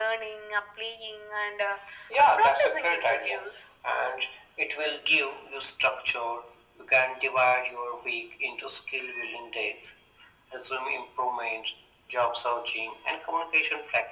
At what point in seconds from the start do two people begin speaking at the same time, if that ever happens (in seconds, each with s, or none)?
2.2 s